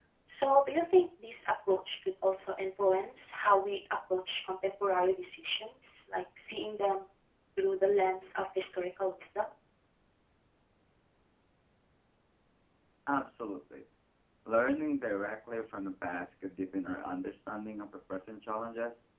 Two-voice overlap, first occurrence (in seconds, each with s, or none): none